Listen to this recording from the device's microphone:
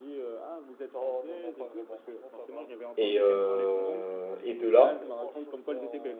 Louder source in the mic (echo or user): user